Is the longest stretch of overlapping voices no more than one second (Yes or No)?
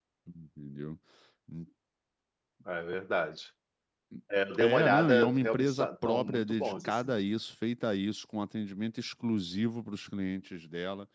No